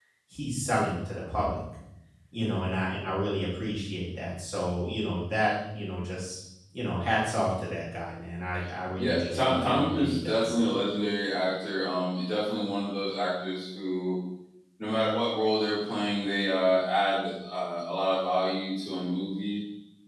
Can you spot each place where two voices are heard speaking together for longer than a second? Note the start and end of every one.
8.9-10.6

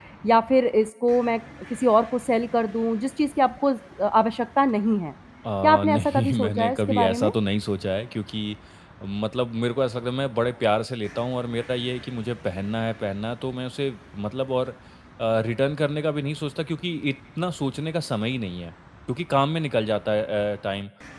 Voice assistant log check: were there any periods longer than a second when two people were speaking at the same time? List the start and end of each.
5.6-7.3

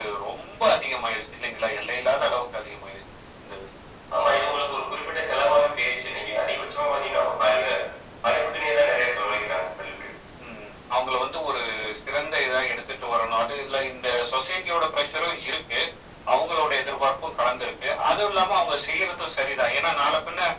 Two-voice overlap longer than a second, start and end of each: none

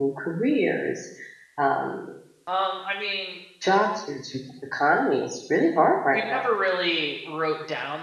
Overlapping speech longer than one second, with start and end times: none

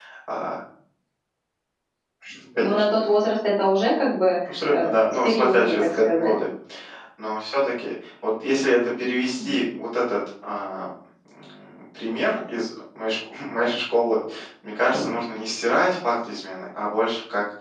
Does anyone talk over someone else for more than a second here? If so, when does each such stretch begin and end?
4.5-6.4

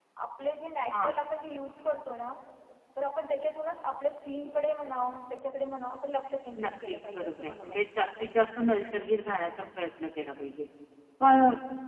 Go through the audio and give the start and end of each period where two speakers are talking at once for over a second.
6.6-7.8

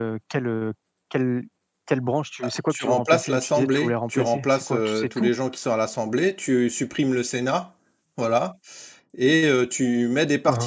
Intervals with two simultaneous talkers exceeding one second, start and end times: 2.7-5.3

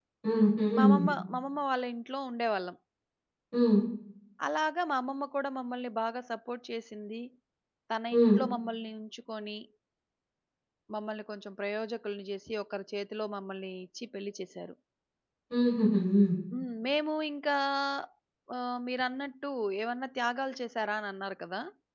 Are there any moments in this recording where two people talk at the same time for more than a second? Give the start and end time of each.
none

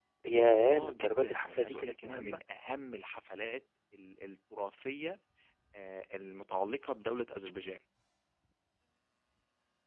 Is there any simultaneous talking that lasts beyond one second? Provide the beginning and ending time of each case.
0.7-2.4

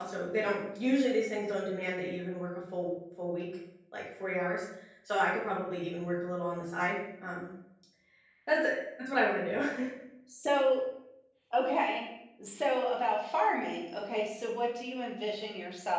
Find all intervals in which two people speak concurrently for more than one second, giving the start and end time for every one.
none

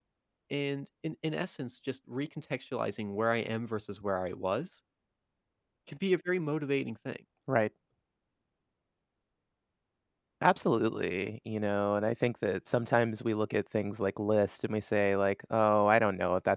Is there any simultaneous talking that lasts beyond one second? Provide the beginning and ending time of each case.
none

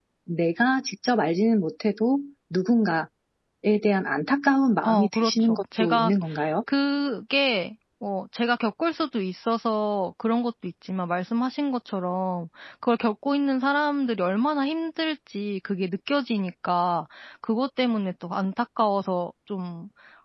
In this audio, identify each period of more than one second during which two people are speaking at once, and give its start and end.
4.8-6.1

